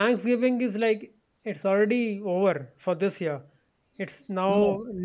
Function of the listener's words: listening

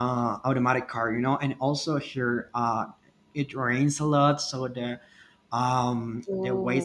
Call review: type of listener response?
listening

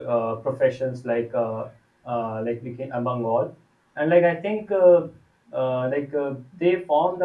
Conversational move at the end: listening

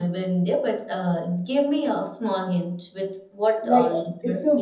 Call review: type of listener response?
taking over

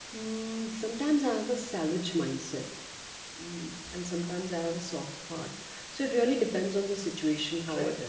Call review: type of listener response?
taking over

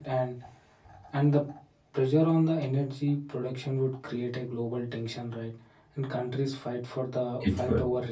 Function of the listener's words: listening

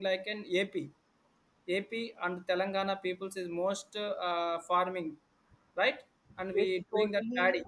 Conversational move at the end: taking over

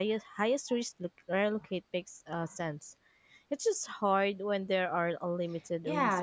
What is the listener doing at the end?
taking over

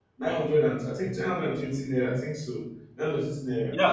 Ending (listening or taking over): taking over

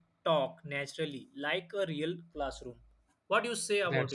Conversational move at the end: taking over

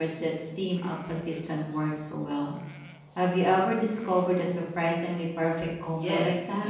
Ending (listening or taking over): taking over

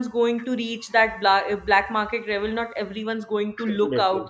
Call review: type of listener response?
listening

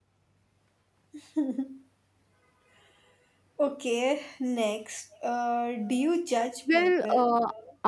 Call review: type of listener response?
taking over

